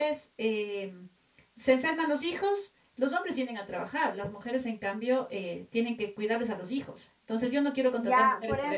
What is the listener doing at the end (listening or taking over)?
taking over